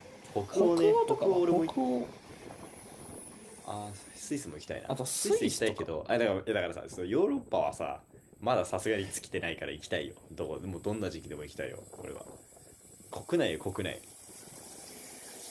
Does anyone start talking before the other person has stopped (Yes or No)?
Yes